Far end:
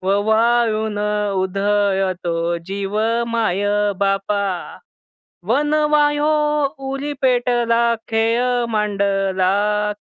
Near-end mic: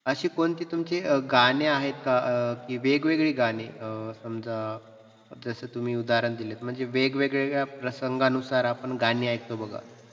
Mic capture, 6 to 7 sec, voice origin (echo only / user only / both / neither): user only